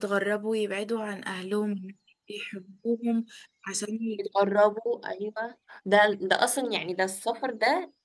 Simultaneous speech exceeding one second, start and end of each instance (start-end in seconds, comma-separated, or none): none